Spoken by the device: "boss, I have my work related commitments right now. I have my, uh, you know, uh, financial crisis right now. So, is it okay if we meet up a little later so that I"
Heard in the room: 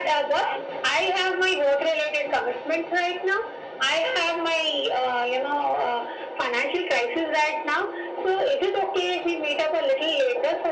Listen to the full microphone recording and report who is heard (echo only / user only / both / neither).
echo only